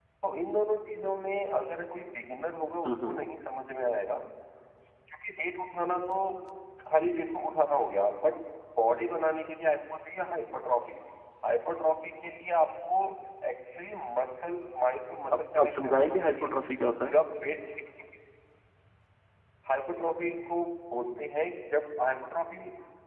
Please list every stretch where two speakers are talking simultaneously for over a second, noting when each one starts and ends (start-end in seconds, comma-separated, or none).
15.3-16.5